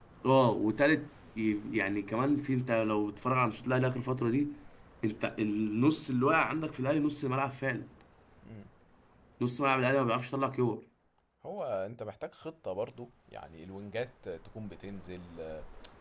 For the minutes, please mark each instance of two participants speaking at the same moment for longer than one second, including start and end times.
none

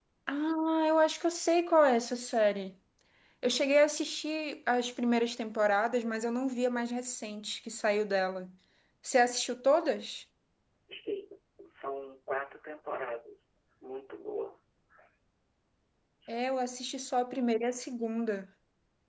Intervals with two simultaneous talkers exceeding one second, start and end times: none

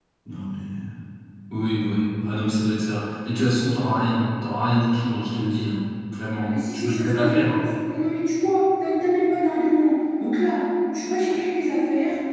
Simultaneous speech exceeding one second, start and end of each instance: 6.4-7.6

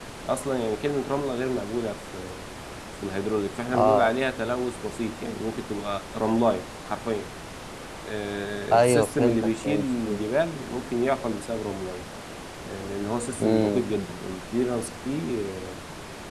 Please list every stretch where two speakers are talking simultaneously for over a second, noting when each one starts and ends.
8.7-10.2

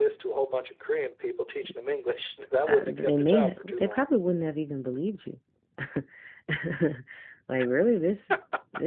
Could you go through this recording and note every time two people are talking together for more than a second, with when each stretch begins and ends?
2.7-4.1

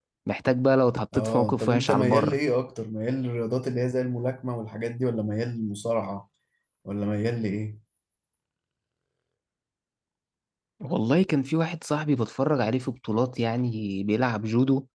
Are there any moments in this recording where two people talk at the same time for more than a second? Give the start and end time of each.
1.1-2.4

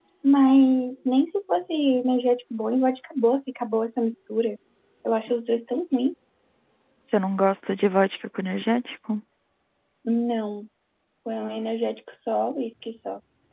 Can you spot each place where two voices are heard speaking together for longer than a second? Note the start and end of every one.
none

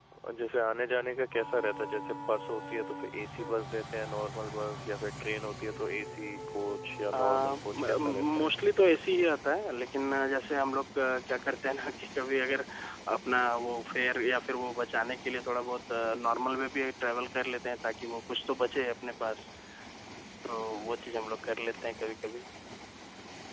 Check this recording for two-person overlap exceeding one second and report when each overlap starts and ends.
7.2-8.5

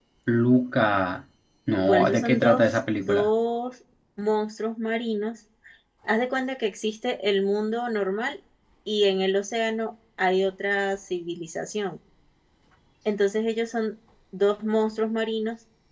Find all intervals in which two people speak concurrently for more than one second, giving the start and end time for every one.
1.8-3.3

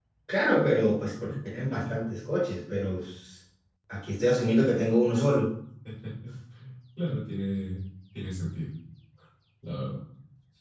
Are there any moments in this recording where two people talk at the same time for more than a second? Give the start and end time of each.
none

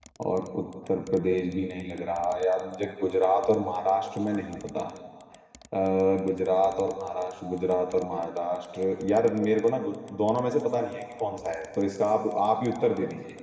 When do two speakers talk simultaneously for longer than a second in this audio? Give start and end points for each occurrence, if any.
none

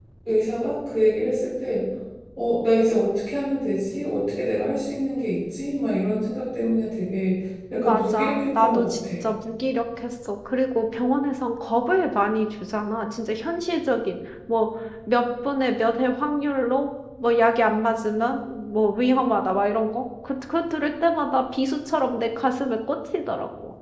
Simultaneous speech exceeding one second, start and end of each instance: 7.8-9.1

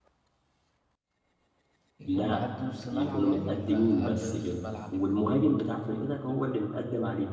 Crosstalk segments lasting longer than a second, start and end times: 2.9-4.6

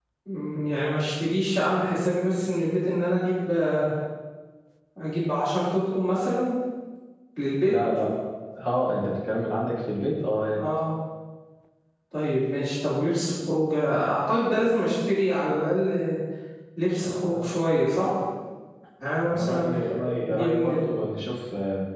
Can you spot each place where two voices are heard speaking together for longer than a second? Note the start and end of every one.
none

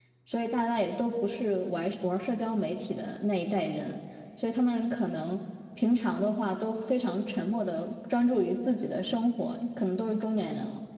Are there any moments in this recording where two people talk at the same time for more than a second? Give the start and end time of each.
none

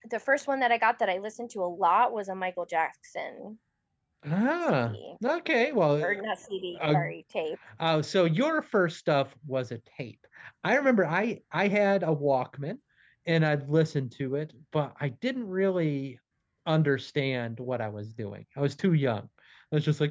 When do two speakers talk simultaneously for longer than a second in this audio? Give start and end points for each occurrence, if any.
none

